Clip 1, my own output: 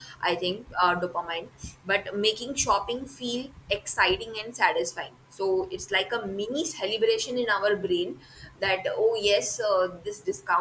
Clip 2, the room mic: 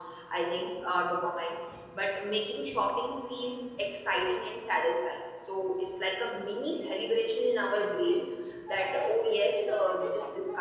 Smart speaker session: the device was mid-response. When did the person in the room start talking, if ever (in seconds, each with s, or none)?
7.6 s